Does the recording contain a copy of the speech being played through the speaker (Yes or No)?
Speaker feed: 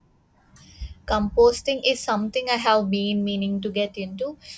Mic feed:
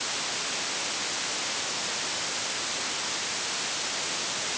No